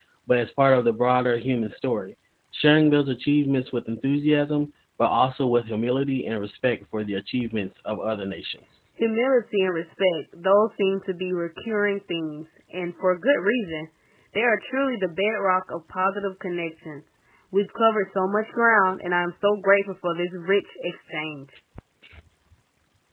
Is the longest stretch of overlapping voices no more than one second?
Yes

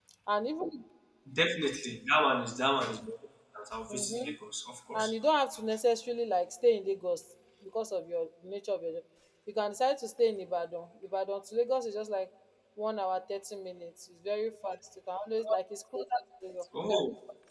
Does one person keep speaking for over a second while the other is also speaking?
No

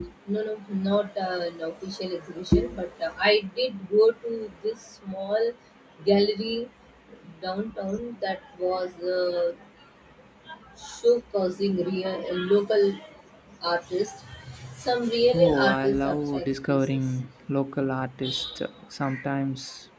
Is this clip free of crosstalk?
No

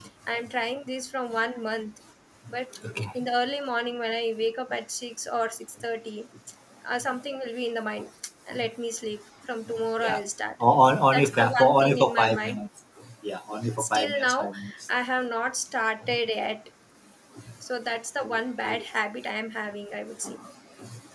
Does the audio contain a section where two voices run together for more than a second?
Yes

